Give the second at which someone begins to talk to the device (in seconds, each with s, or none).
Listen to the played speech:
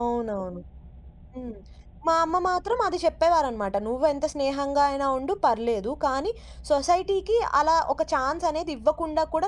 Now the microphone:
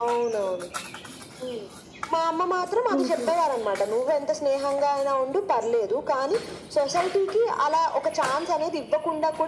2.9 s